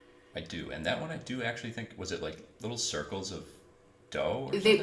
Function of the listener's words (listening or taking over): taking over